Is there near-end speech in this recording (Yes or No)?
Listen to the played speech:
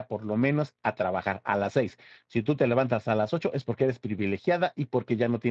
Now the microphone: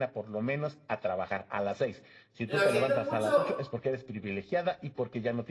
Yes